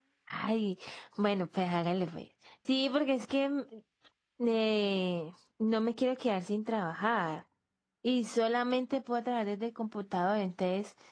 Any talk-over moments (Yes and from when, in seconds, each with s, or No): No